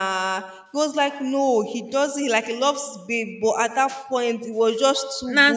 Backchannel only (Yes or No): Yes